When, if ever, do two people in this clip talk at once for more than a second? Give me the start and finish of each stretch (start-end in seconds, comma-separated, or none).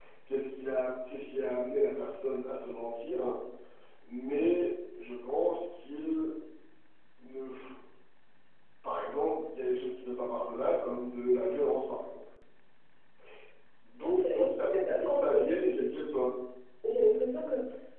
14.0-15.4